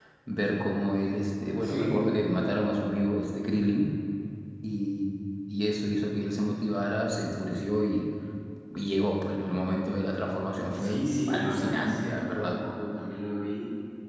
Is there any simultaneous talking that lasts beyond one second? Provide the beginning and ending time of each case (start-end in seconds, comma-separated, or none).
10.8-12.6